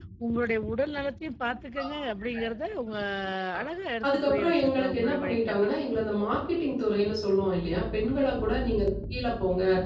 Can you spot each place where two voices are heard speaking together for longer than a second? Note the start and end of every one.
4.0-5.7

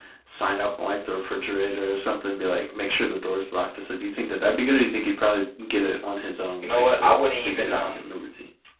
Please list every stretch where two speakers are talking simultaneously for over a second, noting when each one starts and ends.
6.6-8.0

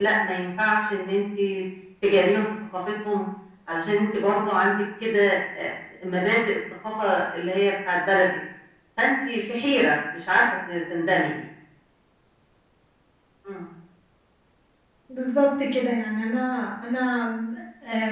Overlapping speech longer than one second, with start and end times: none

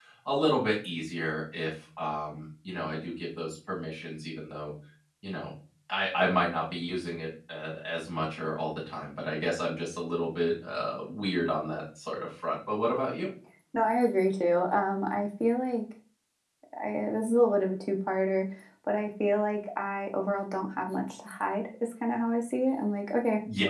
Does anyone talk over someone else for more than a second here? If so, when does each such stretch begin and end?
none

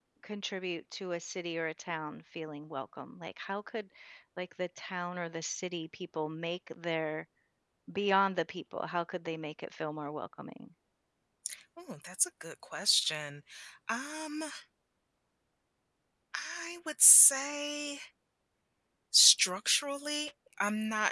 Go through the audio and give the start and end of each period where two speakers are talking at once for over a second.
none

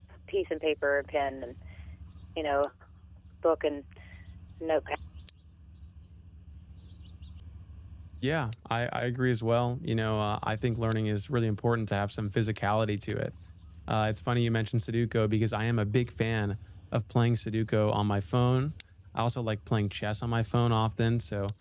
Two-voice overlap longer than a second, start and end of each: none

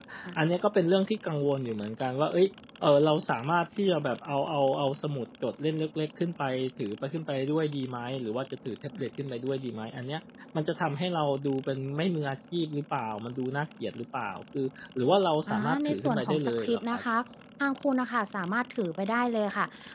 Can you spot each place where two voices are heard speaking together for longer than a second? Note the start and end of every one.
15.5-17.0

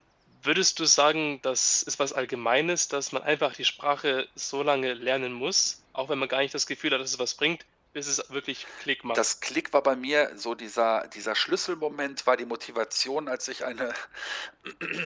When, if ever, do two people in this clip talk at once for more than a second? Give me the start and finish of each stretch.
none

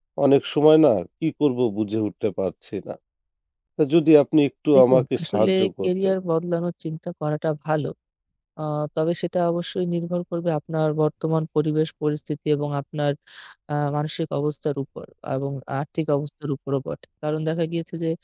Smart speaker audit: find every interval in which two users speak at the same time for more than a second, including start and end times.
4.7-6.1

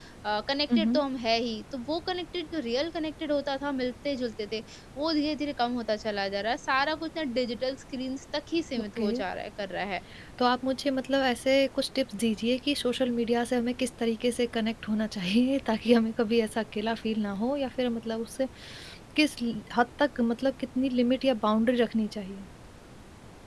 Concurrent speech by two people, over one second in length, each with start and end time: none

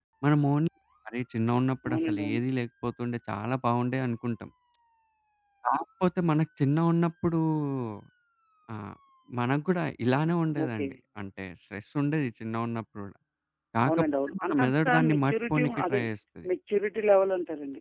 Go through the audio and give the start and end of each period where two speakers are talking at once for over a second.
13.9-16.0

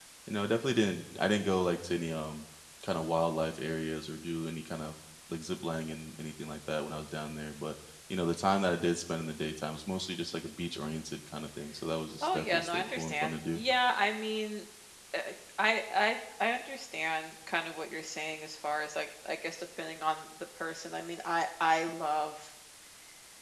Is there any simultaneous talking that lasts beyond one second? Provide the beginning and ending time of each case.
12.2-13.6

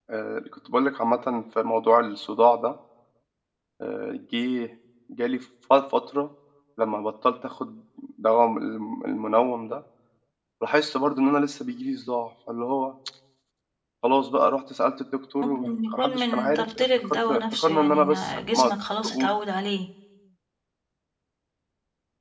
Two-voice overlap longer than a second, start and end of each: 15.6-18.6

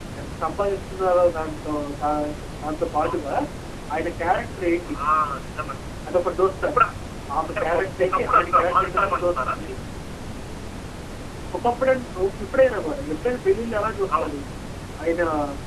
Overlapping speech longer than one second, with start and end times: 7.5-9.5

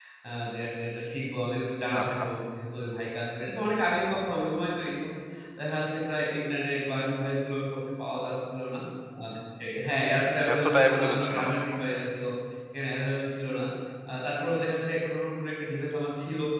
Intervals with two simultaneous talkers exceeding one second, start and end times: 10.5-12.0

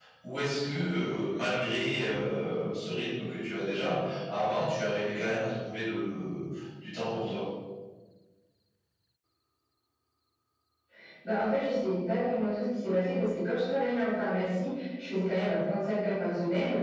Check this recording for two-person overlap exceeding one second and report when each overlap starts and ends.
none

